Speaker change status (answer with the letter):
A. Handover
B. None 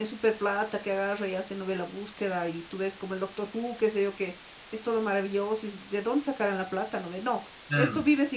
B